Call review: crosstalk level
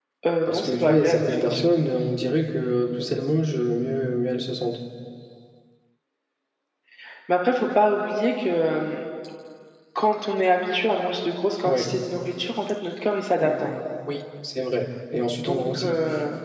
present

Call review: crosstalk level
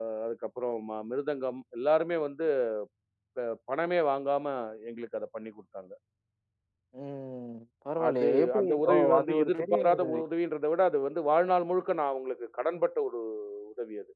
present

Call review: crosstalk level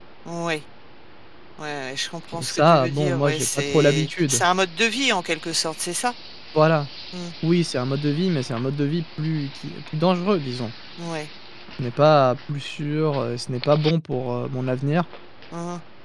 present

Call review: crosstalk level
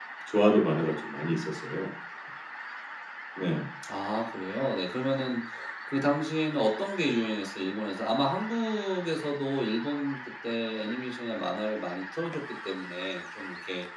none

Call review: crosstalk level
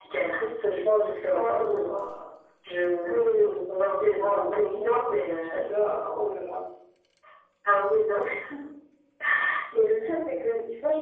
present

